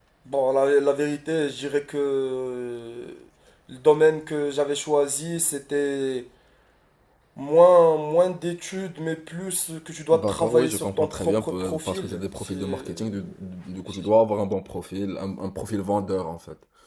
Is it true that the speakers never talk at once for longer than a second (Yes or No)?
No